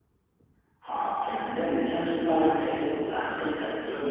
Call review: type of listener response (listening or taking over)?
listening